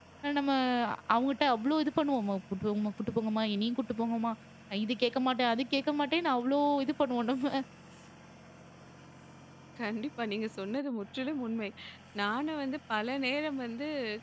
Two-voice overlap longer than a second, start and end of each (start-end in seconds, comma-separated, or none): none